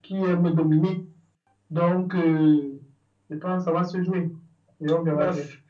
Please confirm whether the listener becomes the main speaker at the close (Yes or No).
Yes